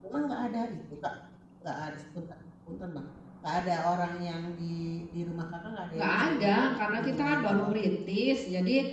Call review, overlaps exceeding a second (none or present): present